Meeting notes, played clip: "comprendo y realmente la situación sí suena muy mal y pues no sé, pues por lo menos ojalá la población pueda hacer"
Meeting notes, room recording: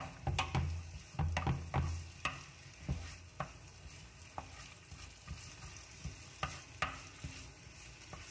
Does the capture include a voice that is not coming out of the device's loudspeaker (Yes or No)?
No